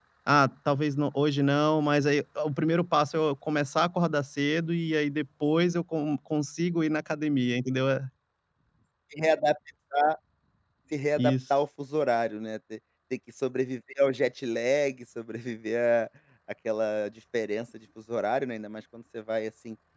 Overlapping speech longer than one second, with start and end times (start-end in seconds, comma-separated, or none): none